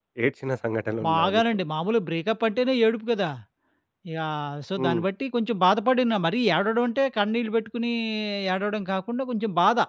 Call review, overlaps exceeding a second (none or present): none